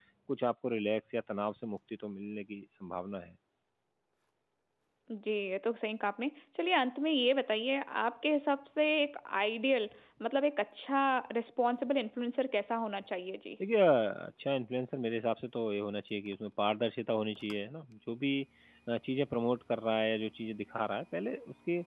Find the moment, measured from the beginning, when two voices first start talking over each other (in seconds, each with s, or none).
none